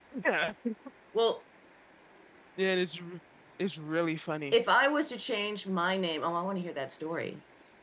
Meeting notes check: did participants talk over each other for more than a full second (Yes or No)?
No